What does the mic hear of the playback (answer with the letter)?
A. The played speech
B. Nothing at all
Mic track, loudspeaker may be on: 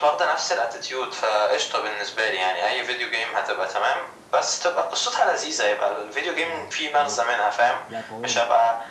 A